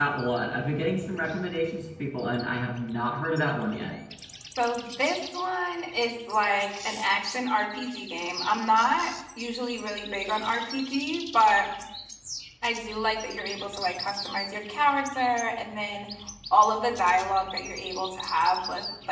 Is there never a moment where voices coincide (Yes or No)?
Yes